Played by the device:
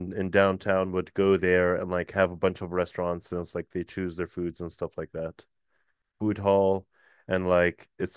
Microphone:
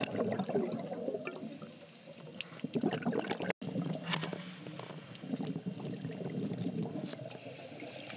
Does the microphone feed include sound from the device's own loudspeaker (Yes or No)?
No